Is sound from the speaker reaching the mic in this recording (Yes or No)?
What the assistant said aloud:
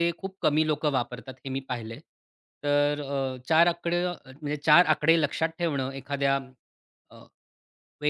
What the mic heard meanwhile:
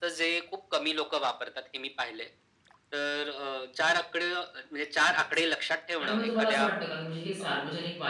Yes